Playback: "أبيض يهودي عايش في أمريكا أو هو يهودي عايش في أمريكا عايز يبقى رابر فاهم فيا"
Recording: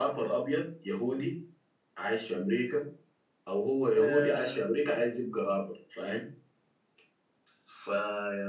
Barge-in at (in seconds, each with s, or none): 3.9 s